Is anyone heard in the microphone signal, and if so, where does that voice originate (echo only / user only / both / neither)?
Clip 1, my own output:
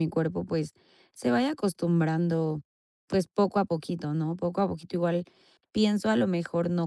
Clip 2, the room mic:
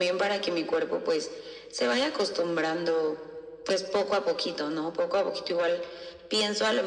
echo only